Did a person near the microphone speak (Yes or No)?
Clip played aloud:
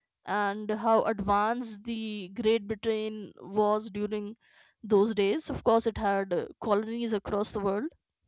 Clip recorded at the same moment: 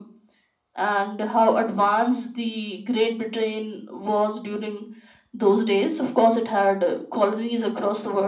No